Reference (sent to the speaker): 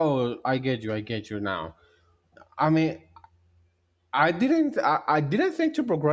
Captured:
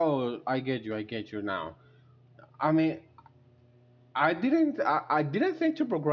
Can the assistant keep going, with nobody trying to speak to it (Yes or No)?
Yes